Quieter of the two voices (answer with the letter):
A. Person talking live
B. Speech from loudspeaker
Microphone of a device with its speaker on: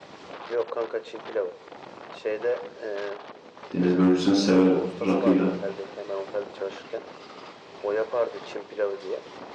B